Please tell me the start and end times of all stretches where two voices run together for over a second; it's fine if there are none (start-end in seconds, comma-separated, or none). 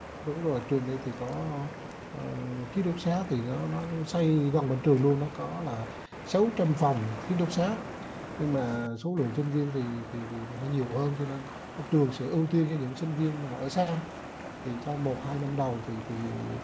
none